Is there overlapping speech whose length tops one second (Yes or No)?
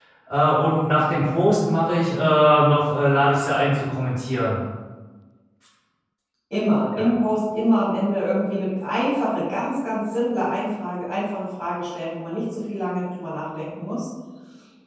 No